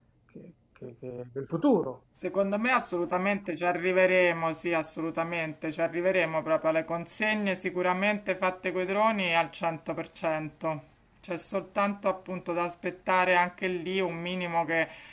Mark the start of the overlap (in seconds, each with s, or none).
none